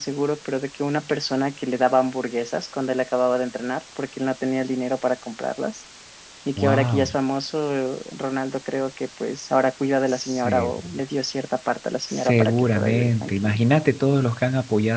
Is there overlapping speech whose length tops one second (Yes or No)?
Yes